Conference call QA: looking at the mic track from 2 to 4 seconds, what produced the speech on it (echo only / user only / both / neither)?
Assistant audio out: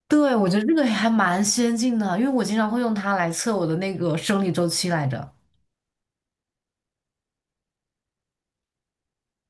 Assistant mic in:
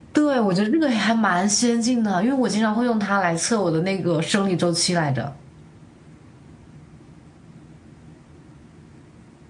echo only